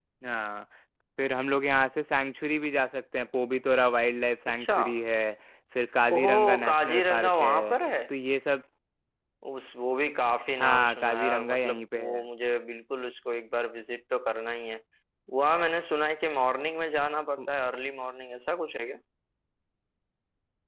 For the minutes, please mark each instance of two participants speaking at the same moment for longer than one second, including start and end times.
6.1-7.7, 10.6-12.2

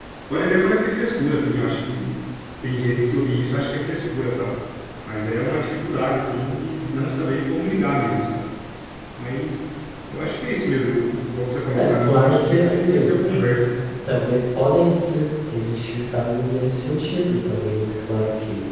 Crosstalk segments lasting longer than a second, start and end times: 11.7-13.1

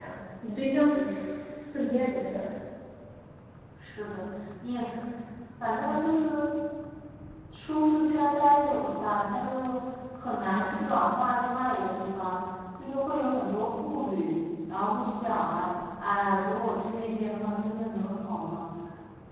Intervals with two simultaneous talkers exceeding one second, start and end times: none

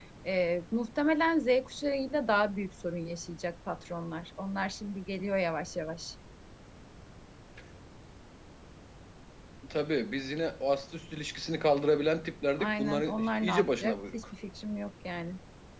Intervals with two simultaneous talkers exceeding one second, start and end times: 12.6-14.2

